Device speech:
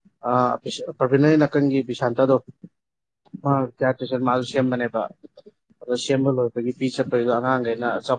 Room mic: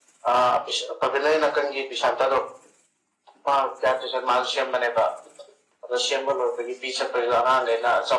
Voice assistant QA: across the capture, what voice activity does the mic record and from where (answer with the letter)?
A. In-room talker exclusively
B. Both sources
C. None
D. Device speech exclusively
D